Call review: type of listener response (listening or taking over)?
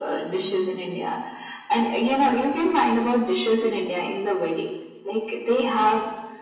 listening